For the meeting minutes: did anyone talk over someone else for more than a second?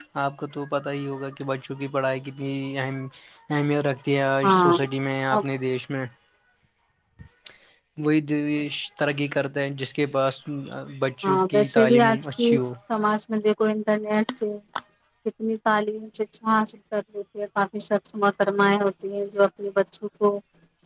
Yes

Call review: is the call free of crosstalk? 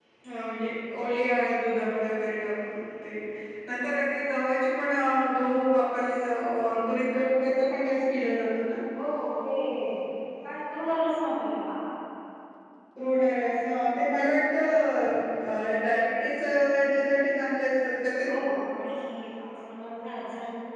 Yes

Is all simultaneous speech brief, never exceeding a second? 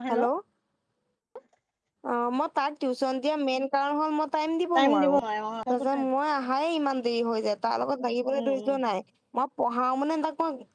Yes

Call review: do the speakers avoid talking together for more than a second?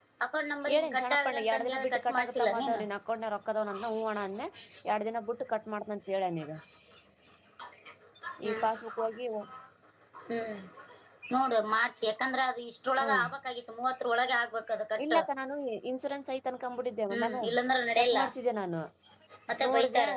No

